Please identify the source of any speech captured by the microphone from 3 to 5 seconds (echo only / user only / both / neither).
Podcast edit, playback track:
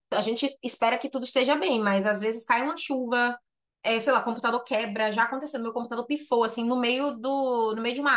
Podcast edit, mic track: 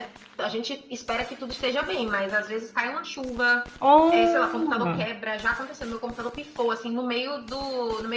both